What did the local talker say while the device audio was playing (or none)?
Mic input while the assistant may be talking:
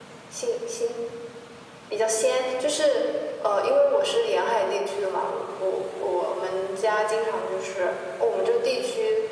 none